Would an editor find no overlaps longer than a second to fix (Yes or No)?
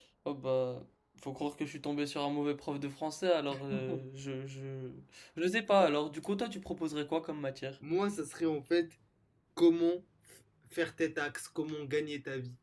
Yes